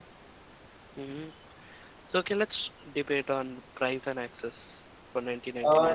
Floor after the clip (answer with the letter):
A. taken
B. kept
A